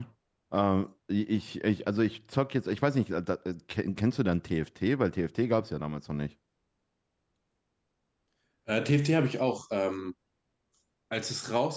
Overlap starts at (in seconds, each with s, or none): none